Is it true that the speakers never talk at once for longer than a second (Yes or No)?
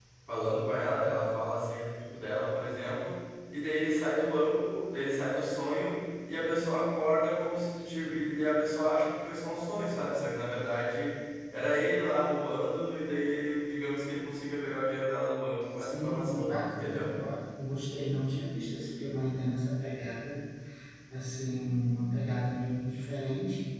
No